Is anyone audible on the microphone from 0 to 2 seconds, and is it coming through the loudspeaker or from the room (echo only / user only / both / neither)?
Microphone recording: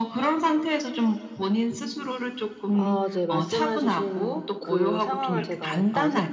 echo only